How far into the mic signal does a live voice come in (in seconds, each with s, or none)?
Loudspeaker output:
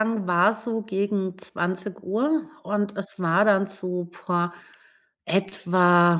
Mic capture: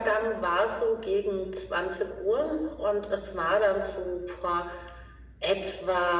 none